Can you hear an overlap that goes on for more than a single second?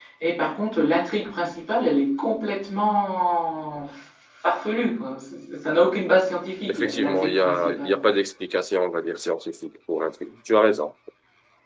Yes, from 6.7 s

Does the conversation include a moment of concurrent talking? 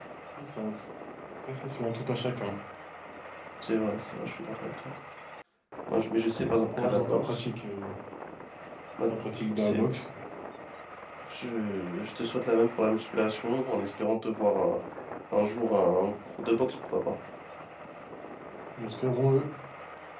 Yes, from 6.1 s

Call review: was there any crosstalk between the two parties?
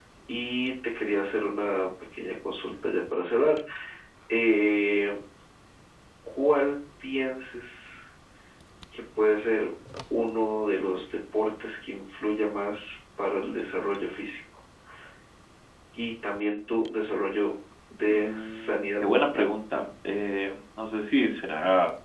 Yes, from 18.1 s

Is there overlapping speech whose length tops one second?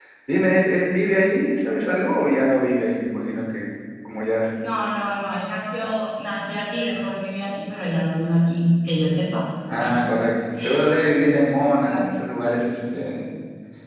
No

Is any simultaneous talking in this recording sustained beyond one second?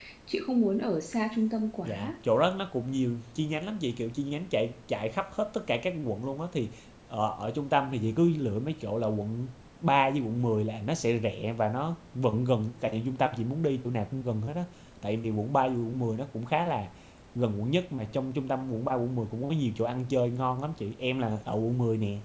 No

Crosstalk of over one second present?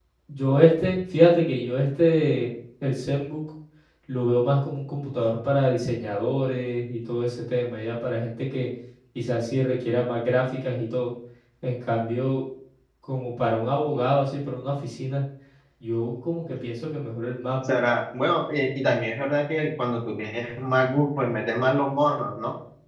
No

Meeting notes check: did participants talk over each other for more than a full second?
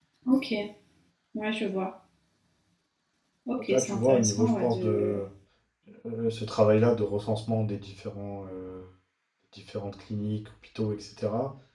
Yes, from 3.7 s

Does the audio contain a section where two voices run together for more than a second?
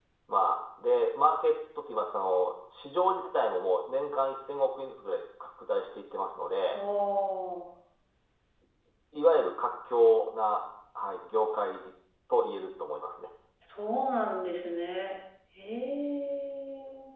No

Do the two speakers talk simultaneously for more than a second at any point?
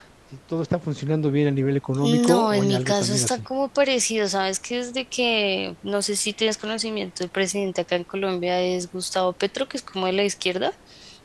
Yes, from 2.0 s

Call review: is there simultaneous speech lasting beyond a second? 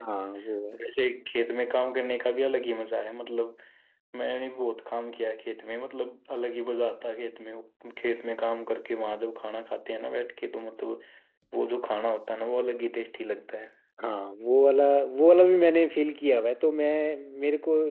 No

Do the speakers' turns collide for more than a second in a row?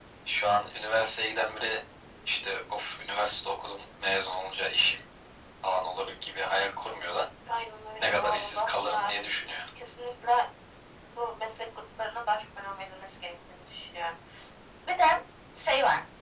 Yes, from 8.0 s

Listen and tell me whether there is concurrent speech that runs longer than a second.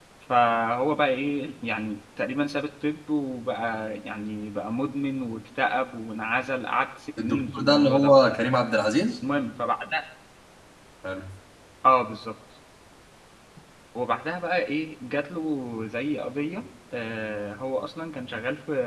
Yes, from 7.2 s

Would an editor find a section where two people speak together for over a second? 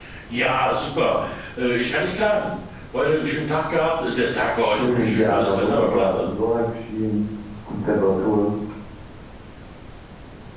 Yes, from 4.8 s

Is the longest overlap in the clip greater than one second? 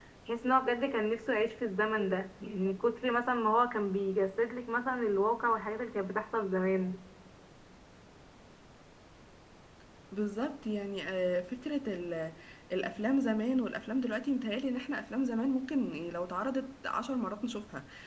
No

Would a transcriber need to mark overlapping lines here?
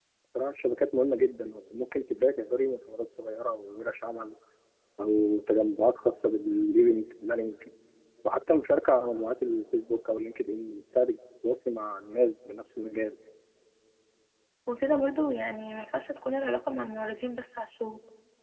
No

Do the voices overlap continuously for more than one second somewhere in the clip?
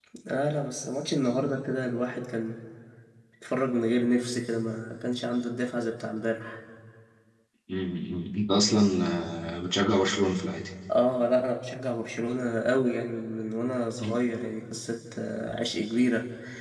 No

